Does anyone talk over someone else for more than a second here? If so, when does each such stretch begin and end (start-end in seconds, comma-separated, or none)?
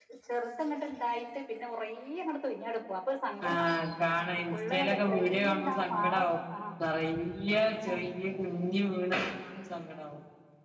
4.5-6.1